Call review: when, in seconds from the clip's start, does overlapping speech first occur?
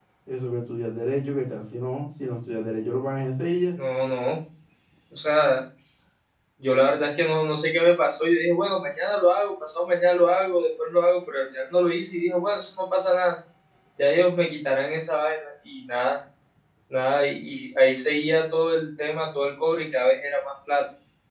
none

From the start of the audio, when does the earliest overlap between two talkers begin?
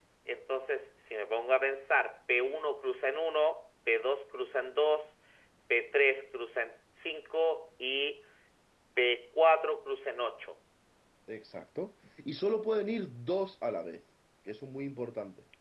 none

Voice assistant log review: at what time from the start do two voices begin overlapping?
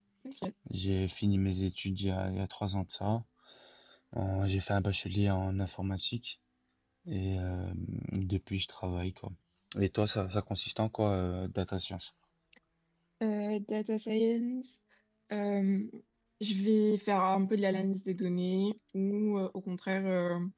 none

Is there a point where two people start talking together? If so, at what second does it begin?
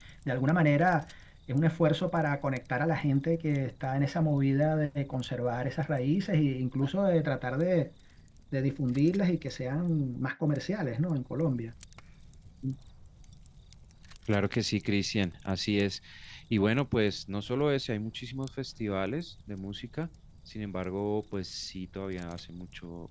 none

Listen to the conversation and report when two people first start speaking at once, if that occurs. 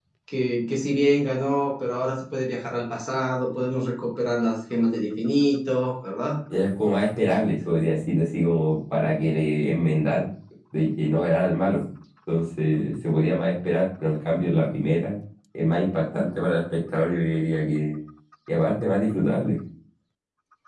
none

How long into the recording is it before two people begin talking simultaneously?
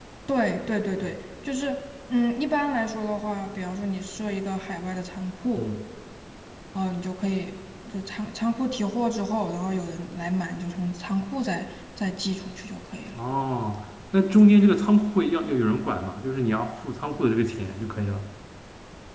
none

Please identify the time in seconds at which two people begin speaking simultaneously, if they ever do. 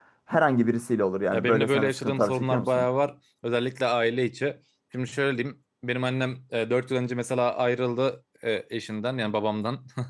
1.3 s

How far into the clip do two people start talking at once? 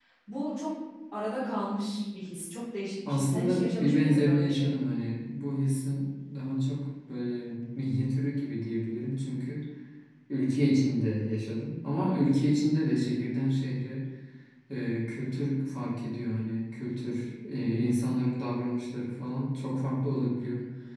3.1 s

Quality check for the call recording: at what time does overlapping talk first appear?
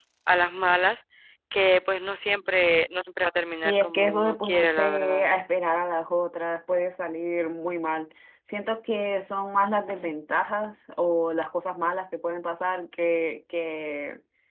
3.6 s

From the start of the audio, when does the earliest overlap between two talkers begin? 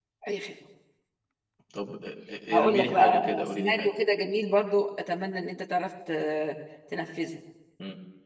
2.5 s

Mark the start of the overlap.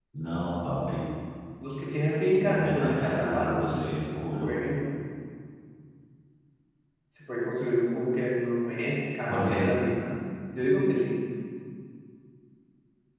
2.5 s

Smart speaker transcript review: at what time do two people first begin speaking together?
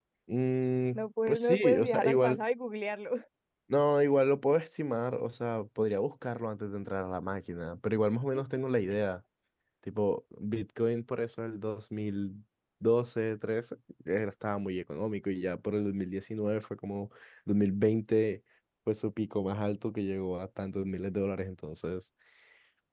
0.9 s

